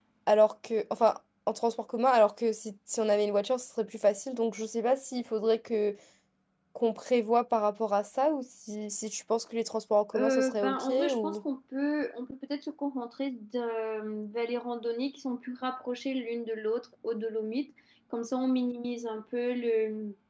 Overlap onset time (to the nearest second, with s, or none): 10 s